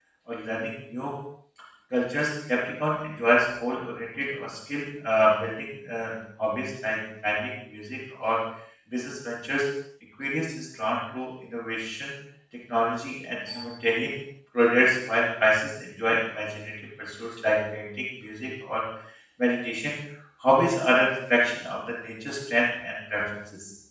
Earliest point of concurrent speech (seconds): none

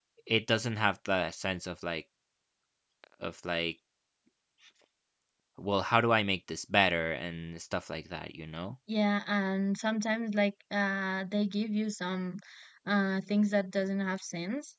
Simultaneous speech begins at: none

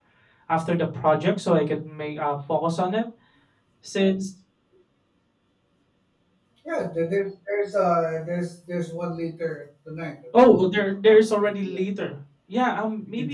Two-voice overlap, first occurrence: 10.4 s

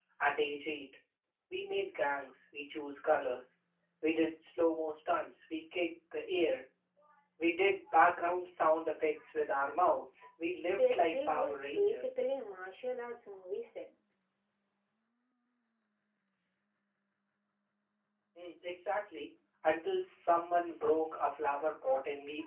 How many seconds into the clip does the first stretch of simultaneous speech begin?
10.7 s

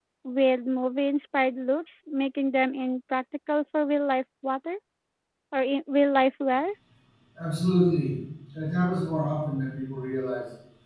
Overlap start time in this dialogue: none

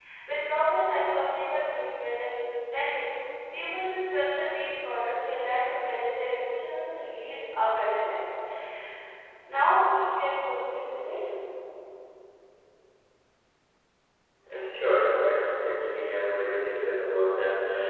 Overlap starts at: none

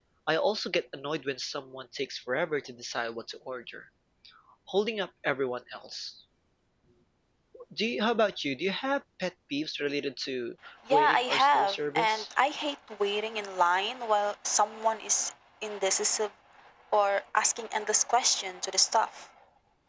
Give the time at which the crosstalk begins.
10.9 s

